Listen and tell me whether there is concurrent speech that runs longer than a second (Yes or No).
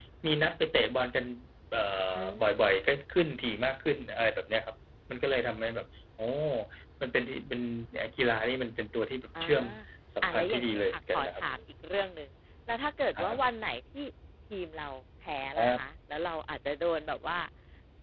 Yes